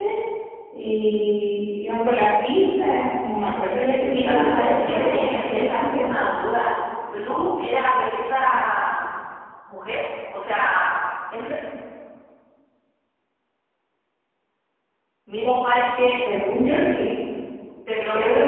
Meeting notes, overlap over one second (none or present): present